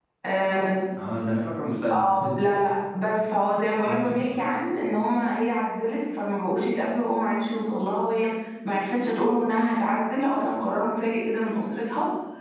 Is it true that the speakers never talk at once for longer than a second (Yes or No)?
Yes